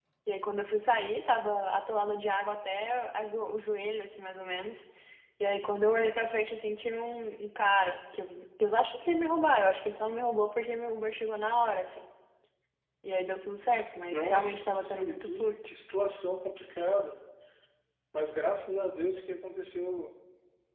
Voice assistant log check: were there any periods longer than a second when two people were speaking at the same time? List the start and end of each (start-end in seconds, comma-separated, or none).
14.1-15.5